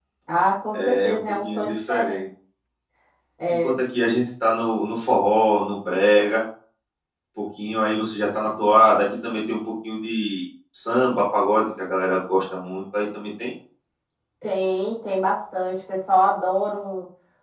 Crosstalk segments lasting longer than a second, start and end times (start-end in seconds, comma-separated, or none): 0.7-2.2